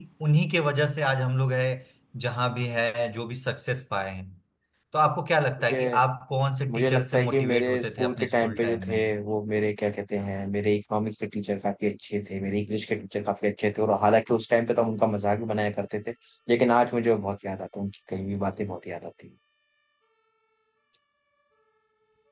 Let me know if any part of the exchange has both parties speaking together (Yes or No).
Yes